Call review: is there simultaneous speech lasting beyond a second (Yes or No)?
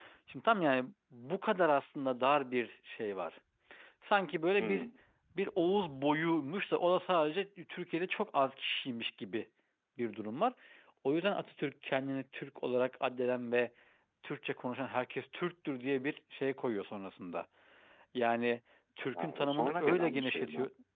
Yes